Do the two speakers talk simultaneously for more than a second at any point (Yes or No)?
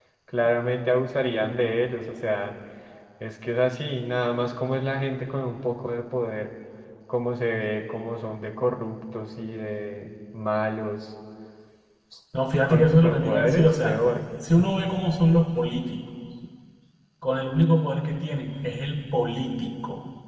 Yes